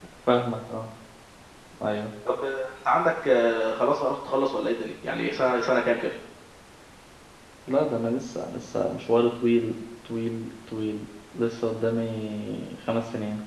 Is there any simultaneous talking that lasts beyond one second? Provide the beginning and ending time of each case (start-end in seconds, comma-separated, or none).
none